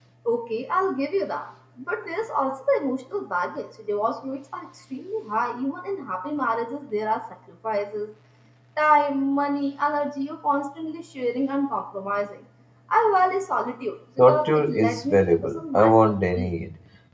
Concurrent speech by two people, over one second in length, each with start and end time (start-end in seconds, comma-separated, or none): 14.2-16.5